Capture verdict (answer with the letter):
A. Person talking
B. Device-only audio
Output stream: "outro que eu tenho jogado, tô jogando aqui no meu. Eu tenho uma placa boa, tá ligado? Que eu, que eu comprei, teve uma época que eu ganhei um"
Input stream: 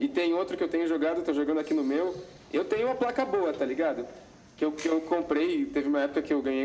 B